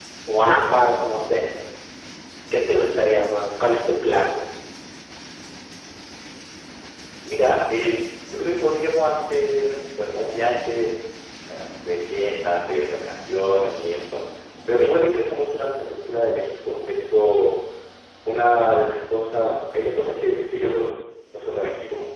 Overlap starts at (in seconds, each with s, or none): none